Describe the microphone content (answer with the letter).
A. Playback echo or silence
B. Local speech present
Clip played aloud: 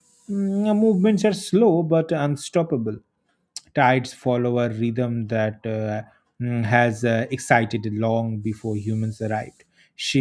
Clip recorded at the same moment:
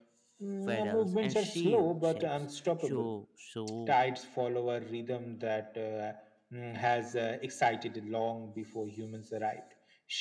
B